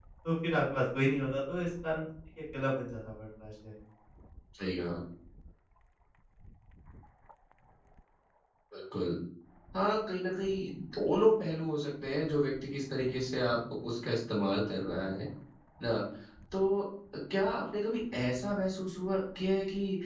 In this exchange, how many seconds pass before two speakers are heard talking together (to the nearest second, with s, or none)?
none